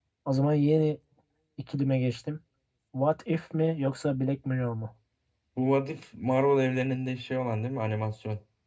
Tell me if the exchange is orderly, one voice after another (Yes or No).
Yes